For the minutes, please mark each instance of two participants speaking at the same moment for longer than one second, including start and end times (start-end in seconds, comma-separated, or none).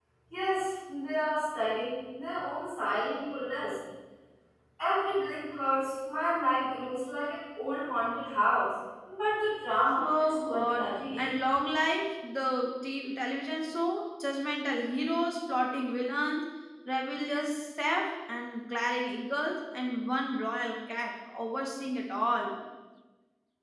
10.0-11.3